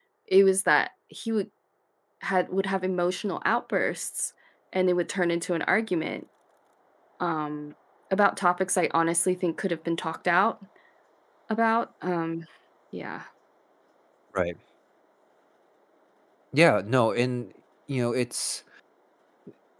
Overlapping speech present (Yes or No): No